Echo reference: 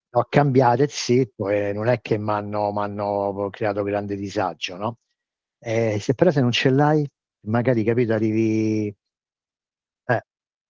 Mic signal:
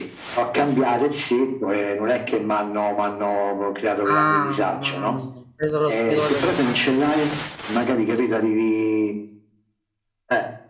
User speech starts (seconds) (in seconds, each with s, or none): 4.0 s